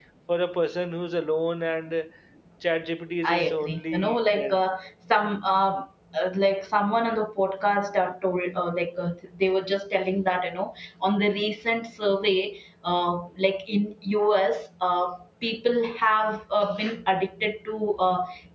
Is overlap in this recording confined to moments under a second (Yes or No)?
No